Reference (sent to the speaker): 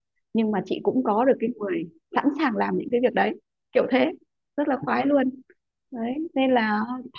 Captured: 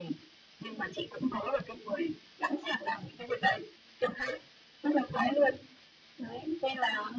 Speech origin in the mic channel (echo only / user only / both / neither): echo only